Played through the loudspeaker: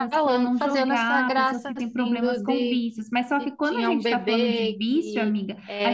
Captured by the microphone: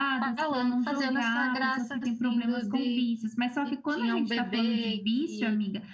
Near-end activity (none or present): none